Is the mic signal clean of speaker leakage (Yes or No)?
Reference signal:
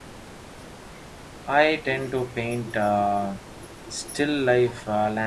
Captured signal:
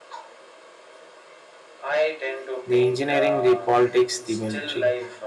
No